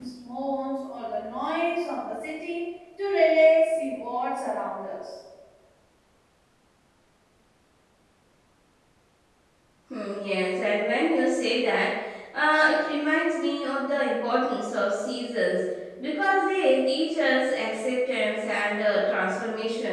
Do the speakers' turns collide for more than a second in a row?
No

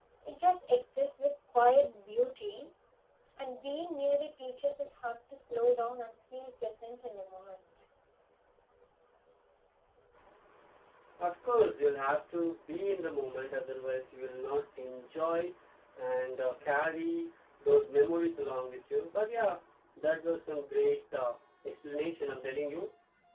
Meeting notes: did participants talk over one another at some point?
No

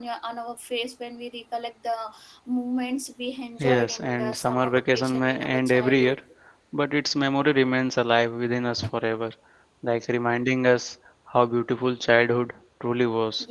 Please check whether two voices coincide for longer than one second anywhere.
Yes, from 3.6 s

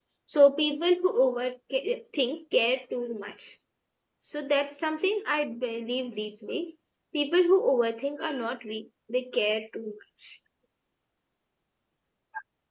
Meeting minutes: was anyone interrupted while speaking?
No

